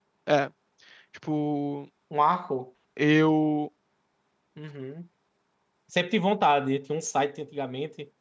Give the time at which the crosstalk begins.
none

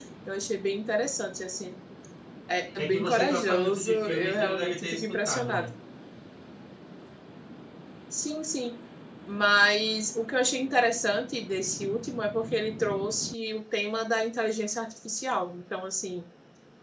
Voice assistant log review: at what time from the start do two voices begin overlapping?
2.8 s

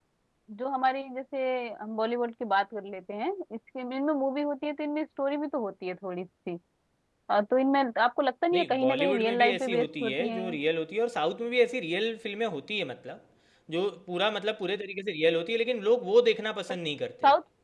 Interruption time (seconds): 8.5 s

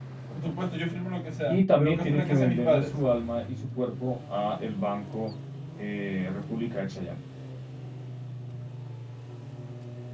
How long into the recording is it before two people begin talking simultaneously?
1.5 s

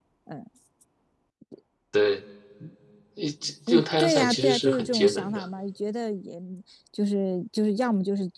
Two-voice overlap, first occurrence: 3.7 s

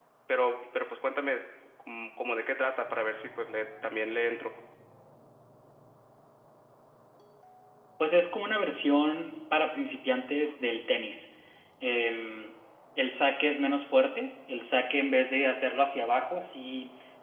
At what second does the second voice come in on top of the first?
none

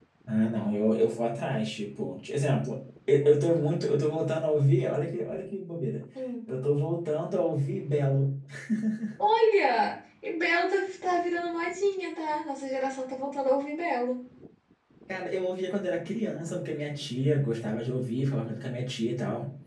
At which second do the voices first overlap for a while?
none

